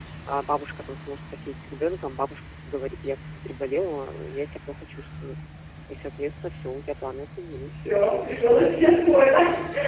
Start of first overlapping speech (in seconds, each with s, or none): 7.7 s